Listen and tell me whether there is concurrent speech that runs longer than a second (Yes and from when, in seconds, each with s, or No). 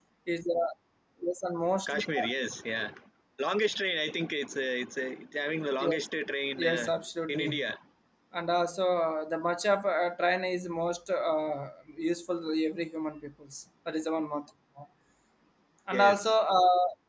No